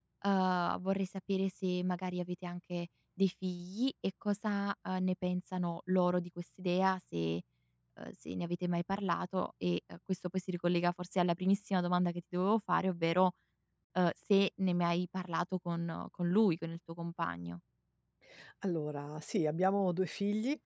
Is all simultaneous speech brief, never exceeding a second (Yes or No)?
Yes